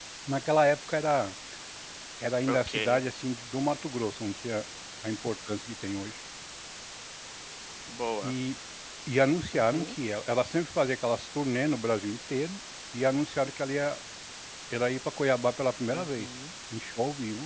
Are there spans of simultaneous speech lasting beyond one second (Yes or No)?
No